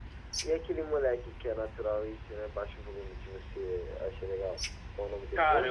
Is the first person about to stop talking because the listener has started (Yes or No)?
Yes